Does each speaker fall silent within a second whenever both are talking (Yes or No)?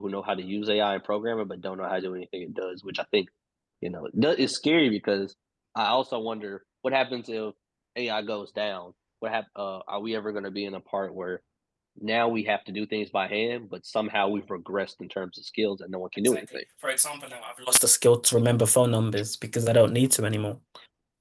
Yes